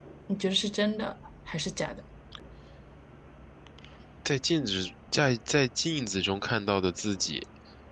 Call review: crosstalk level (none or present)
none